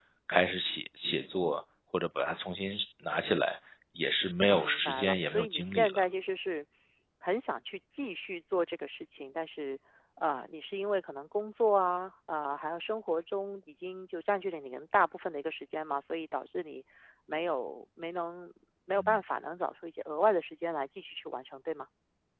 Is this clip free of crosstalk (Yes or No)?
No